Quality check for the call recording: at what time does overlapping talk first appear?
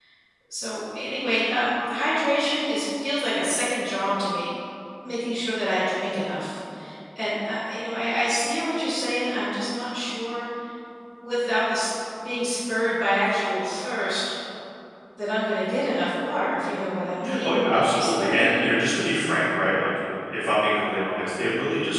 17 s

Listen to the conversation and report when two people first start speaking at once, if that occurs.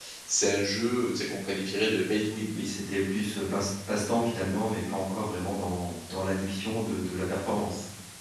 none

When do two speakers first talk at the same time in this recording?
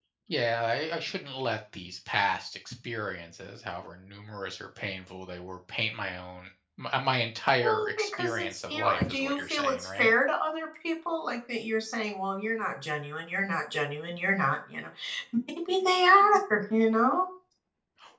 8 s

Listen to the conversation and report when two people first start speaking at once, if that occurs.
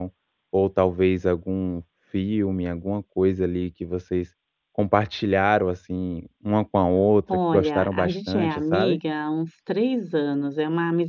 8 s

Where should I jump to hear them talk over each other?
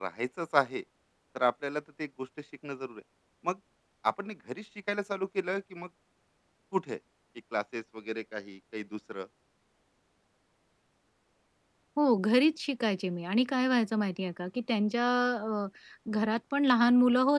none

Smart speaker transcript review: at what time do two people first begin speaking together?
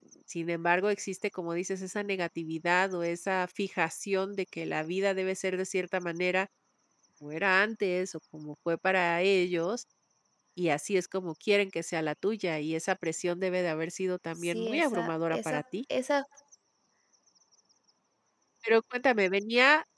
14 s

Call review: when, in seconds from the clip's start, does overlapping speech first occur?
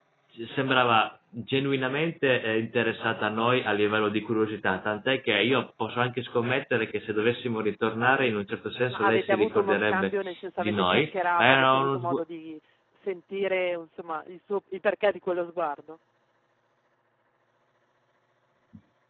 9 s

